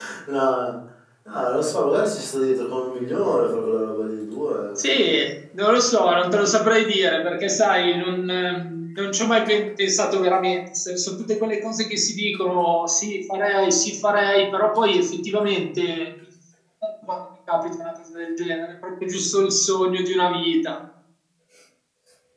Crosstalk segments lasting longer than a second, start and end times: none

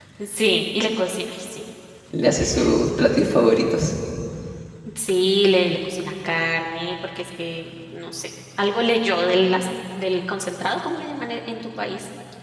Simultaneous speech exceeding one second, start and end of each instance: none

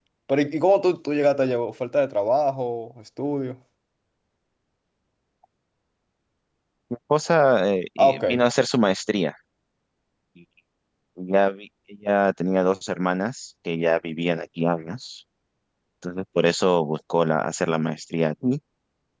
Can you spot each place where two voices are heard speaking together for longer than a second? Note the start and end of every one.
none

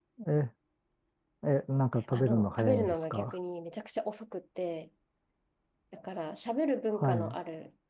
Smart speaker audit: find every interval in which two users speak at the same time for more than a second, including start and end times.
2.1-3.4

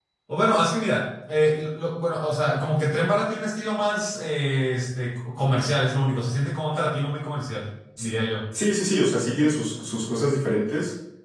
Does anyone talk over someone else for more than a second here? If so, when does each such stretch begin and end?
none

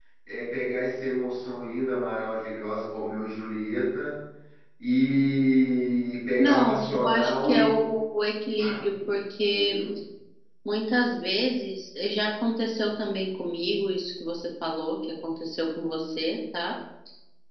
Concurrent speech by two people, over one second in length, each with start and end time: 6.4-7.8

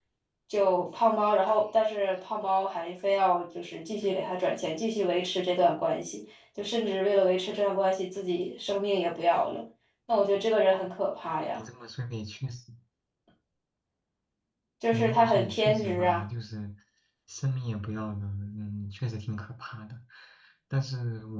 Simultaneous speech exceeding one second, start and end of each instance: 14.9-16.2

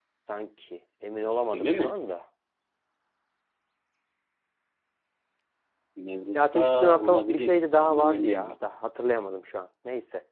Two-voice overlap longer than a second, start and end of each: 6.3-8.5

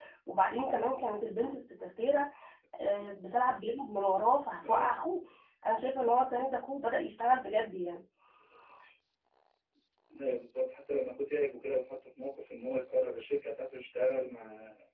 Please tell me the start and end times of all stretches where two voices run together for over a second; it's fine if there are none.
none

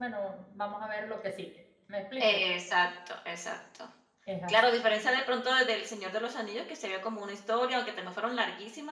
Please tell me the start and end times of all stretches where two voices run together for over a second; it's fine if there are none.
none

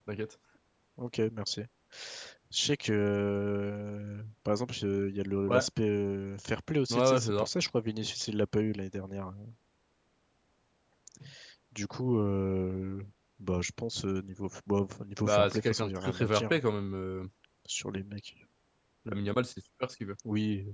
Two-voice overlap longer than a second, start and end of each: 15.2-16.6

